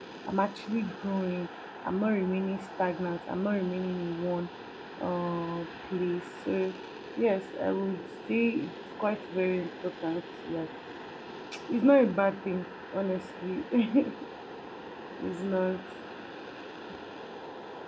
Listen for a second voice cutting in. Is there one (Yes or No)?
No